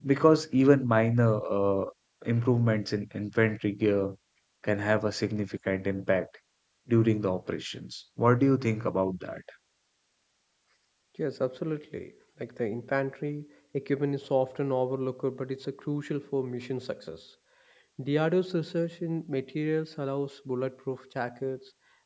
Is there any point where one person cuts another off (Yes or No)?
No